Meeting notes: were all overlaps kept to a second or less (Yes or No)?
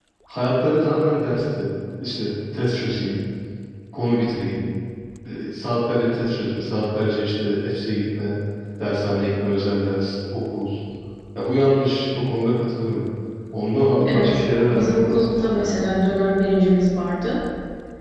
No